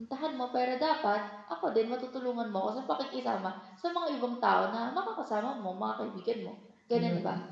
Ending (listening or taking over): taking over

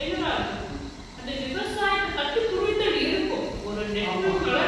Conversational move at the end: listening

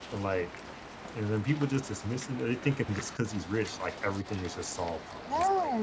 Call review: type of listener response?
taking over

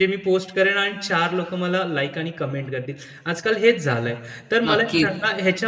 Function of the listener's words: listening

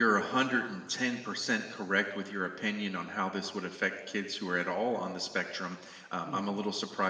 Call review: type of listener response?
listening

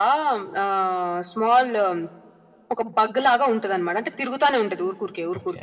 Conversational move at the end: taking over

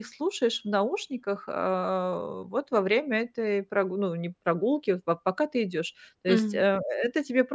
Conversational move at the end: listening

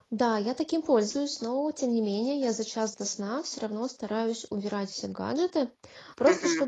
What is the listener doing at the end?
listening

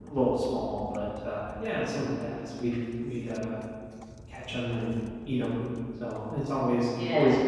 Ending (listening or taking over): listening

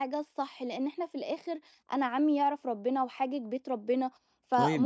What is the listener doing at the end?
listening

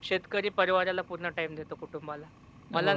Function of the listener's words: listening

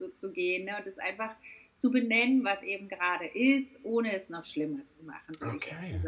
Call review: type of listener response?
listening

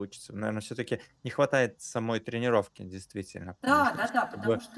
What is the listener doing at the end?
taking over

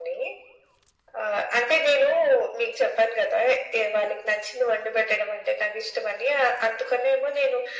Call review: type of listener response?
listening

